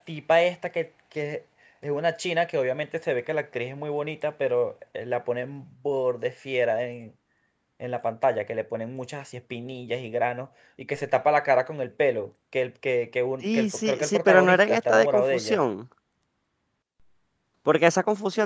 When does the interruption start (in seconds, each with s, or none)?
13.4 s